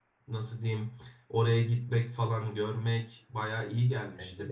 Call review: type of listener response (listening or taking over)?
listening